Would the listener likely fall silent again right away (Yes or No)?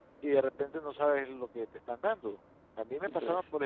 Yes